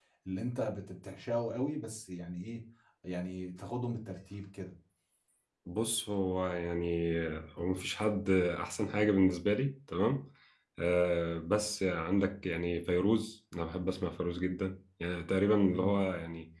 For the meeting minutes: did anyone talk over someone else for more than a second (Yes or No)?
No